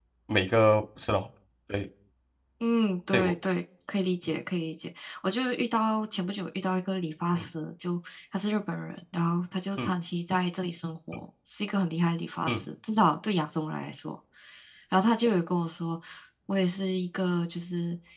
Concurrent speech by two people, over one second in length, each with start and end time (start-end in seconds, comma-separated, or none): none